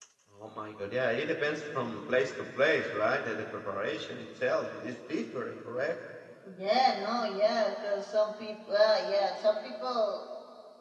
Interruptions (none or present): none